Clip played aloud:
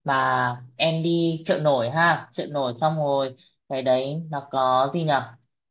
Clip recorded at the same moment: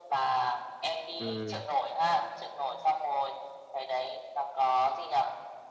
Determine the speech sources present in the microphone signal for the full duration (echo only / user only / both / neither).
both